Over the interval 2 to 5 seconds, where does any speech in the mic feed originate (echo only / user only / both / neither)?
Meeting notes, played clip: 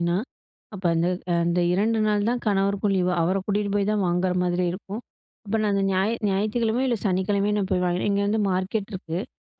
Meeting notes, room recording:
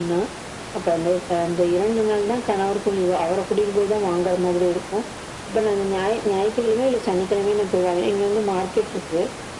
echo only